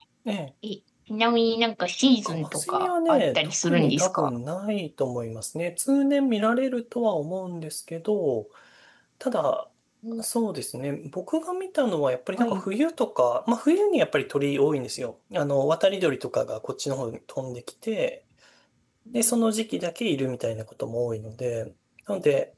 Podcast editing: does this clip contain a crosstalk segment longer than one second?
Yes, from 2.2 s

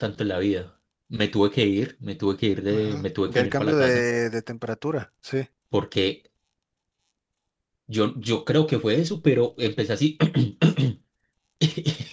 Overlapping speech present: Yes, from 2.7 s

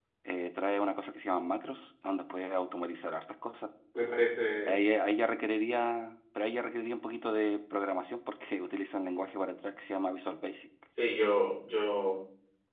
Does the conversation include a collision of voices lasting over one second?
No

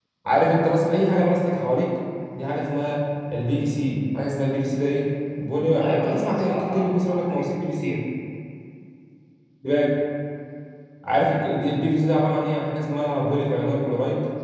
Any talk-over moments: Yes, from 5.8 s

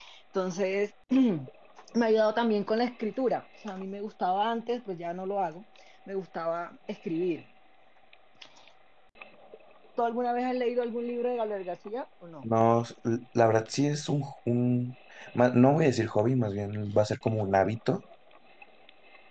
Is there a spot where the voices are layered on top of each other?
No

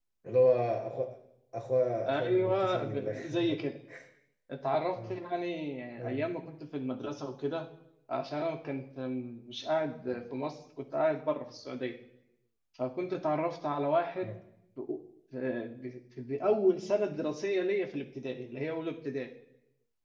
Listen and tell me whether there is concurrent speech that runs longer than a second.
Yes, from 2.1 s

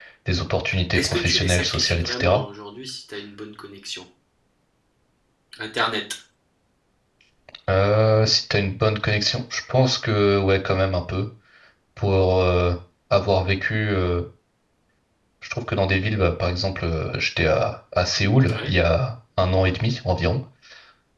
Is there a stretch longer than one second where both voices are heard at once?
Yes, from 1.0 s

